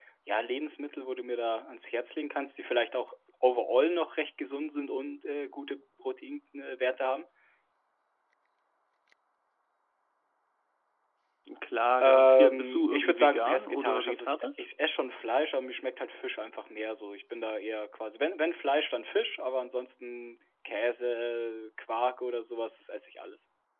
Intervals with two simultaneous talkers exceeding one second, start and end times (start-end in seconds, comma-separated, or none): 12.0-14.5